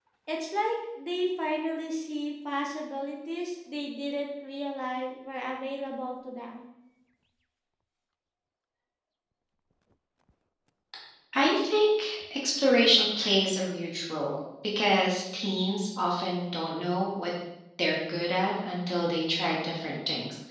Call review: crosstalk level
none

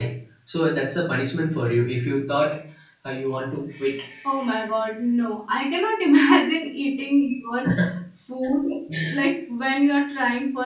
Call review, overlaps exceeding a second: none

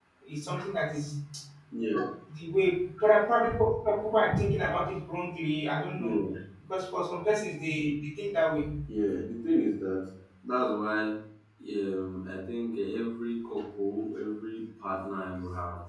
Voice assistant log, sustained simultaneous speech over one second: none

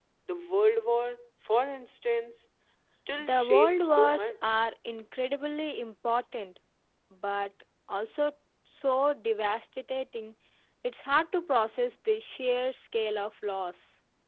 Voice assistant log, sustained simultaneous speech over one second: present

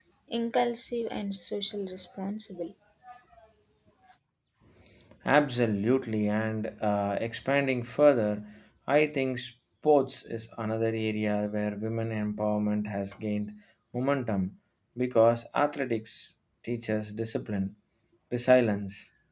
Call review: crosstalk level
none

